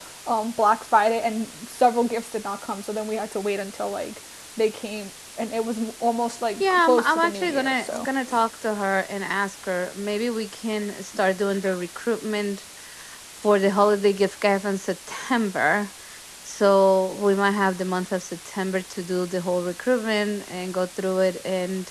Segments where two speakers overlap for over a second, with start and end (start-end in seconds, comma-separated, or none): 6.6-8.1